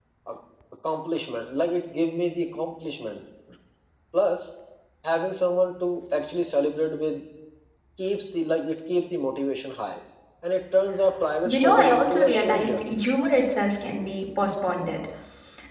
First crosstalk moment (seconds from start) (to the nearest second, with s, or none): 11 s